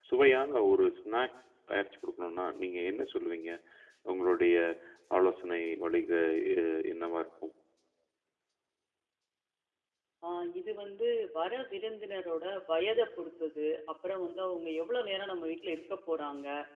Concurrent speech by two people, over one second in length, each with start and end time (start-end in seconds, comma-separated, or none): none